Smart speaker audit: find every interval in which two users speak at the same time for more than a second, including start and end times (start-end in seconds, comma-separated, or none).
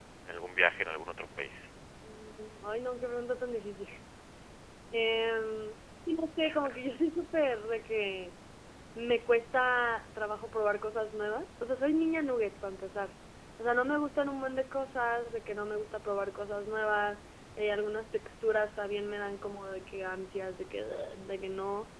none